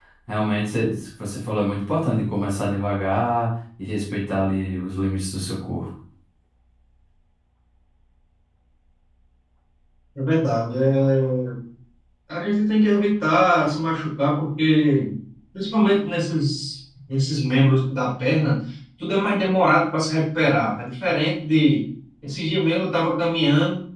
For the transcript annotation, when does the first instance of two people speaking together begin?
none

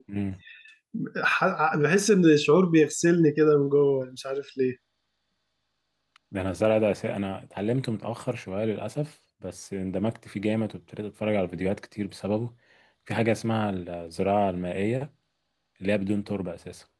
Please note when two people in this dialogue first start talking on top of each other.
none

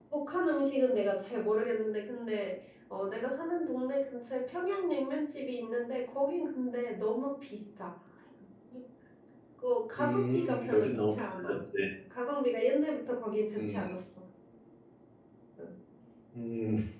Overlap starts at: 10.0 s

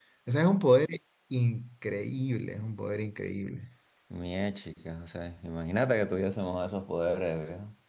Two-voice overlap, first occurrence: none

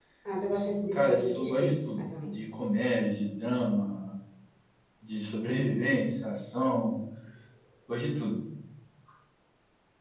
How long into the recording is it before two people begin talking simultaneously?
0.9 s

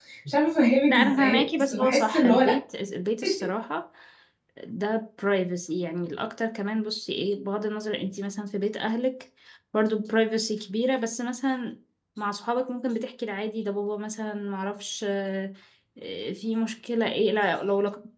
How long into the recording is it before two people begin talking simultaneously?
0.9 s

